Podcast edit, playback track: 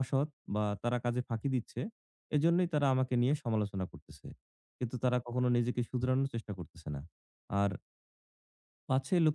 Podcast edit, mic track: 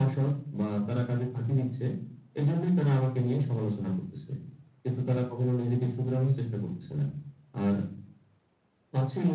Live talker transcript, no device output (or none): none